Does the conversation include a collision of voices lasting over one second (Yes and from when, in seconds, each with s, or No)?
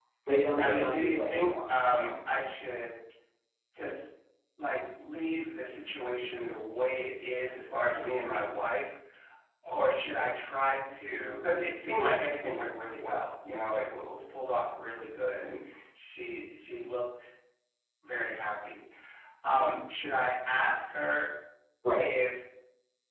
Yes, from 0.5 s